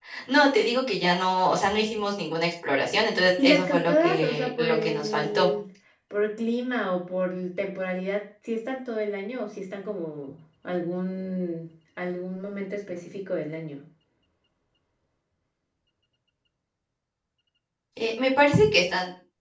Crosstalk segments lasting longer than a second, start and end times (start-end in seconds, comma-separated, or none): 3.4-5.5